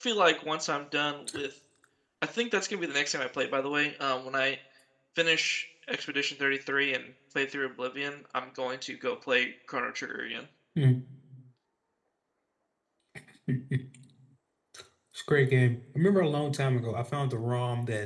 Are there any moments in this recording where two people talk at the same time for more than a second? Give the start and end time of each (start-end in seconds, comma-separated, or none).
none